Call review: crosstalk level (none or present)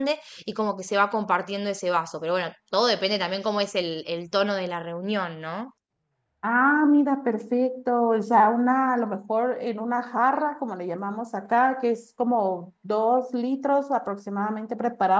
none